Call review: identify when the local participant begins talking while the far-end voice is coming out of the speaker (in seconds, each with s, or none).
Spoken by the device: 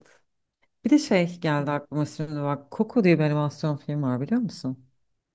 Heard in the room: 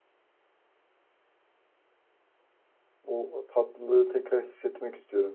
3.0 s